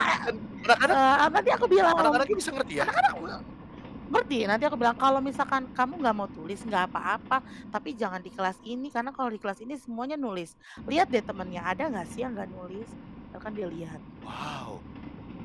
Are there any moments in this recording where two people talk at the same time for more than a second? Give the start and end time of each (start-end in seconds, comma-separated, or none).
none